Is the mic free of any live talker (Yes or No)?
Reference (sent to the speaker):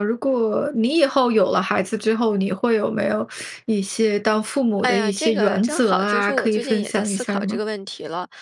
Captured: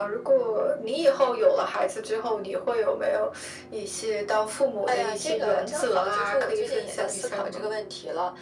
Yes